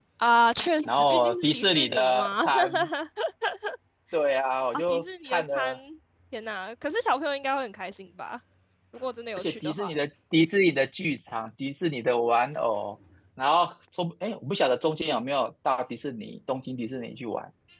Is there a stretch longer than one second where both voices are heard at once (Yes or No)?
Yes